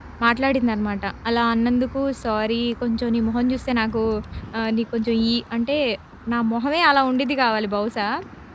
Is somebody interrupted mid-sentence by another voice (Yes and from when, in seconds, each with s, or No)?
No